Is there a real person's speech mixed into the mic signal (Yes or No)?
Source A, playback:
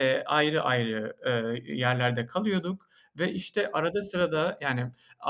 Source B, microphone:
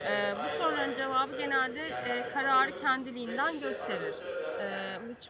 Yes